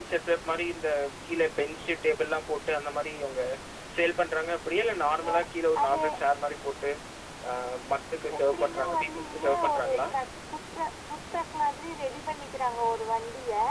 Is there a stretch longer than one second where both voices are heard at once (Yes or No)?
Yes